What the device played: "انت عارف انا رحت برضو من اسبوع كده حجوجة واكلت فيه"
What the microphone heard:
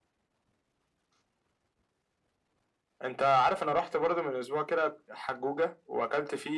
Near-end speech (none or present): none